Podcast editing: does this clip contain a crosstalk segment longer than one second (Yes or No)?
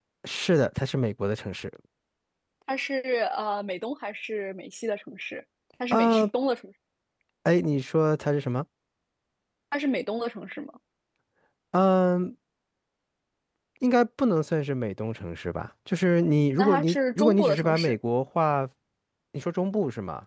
Yes